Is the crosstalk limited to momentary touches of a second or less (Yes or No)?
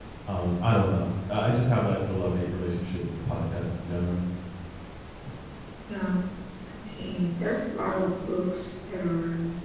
Yes